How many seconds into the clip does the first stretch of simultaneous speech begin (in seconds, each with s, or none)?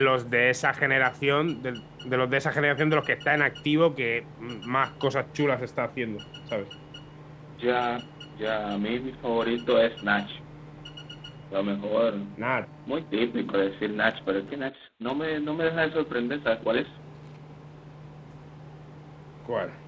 none